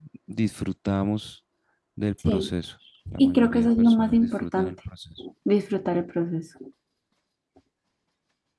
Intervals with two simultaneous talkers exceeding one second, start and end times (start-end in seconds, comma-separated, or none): 3.2-4.7